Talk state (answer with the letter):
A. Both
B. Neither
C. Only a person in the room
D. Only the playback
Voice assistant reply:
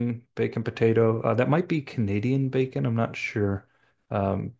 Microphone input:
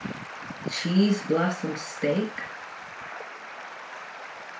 C